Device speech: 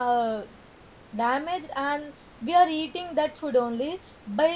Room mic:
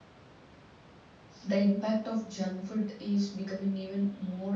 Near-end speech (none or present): present